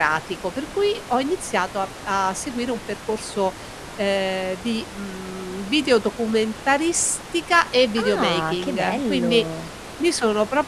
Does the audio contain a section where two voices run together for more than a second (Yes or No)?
Yes